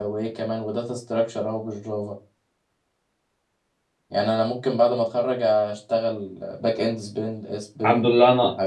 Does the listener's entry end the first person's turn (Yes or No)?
Yes